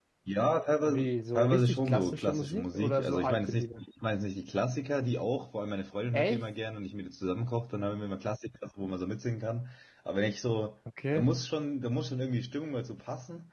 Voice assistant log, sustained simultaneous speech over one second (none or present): present